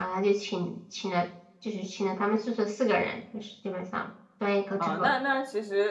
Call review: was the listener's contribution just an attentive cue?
No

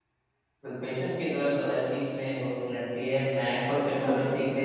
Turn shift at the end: No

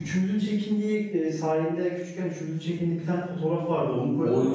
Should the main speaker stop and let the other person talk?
No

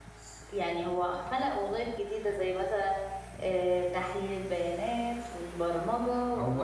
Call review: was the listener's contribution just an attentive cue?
No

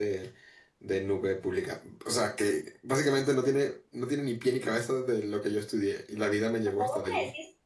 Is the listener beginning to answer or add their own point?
Yes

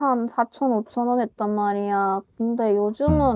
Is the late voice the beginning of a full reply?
No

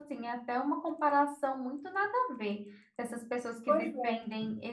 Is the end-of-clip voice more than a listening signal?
No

